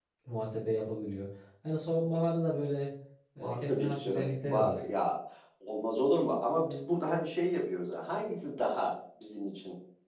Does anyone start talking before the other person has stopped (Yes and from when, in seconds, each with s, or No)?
Yes, from 3.4 s